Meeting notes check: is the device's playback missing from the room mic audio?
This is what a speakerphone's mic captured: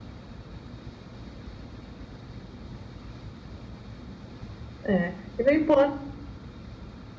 Yes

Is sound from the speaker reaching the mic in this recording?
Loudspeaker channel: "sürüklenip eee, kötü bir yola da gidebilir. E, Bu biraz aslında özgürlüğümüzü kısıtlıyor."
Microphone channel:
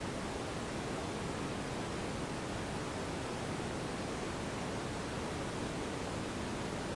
No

